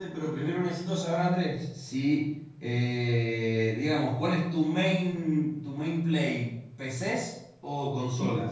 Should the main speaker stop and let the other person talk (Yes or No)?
Yes